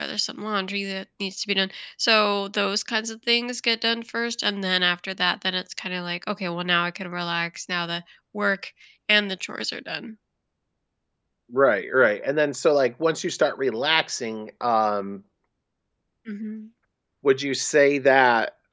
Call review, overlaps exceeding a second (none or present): none